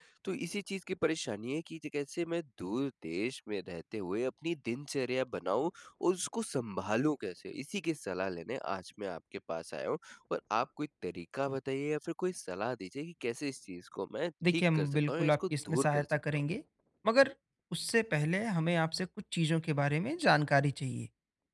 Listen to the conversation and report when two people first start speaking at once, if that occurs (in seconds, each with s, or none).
14.4 s